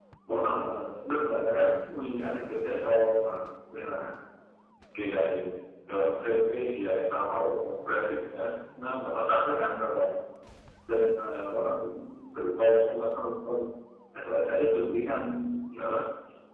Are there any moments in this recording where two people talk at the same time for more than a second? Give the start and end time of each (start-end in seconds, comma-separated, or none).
none